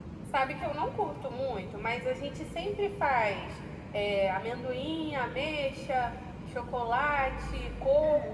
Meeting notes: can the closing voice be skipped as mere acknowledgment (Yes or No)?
No